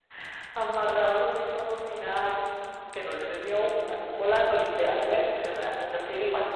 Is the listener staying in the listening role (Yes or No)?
No